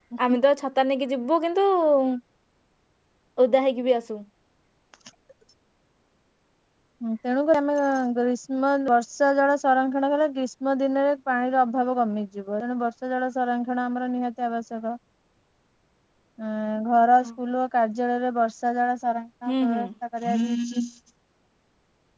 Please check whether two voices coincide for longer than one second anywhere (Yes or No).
No